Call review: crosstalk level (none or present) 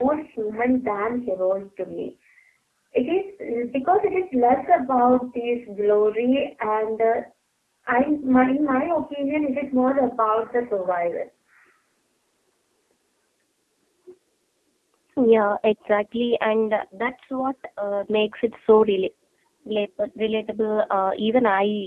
none